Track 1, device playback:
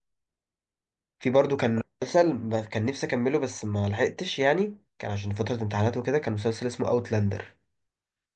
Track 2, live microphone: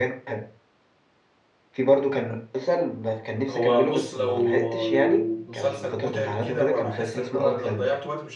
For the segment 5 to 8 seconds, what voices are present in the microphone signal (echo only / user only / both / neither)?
both